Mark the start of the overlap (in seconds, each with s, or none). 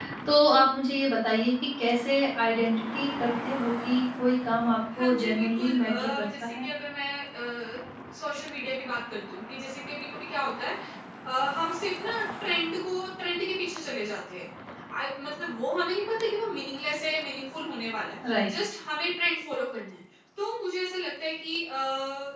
5.0 s